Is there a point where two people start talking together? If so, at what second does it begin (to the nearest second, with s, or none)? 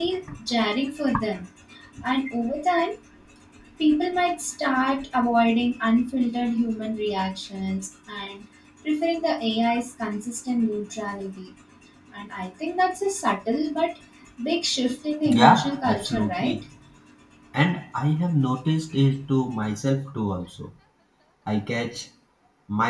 15 s